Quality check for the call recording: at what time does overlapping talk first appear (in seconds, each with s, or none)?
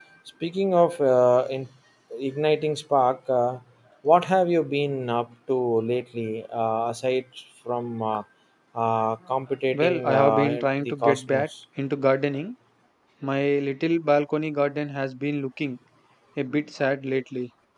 9.7 s